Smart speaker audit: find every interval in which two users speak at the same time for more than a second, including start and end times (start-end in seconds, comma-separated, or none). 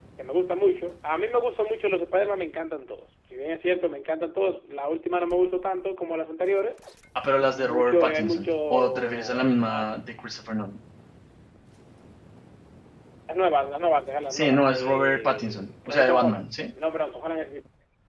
7.4-10.0, 14.3-16.4